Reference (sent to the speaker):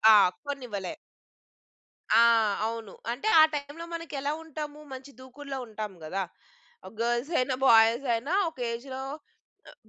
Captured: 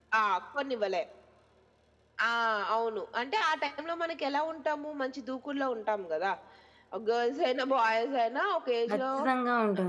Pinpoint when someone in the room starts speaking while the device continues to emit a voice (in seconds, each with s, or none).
8.9 s